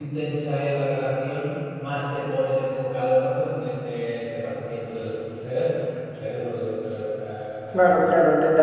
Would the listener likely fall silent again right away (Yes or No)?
No